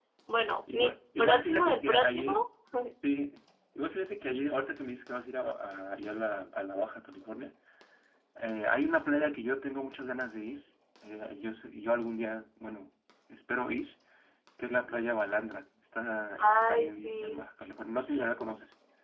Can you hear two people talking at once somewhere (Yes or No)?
Yes